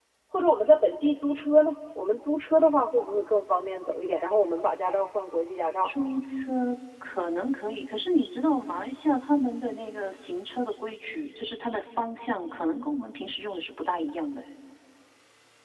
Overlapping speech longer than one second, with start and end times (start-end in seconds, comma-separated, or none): none